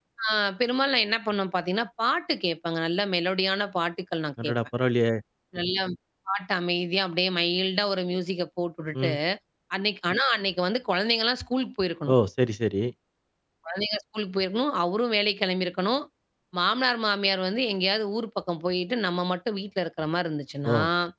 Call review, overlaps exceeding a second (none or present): none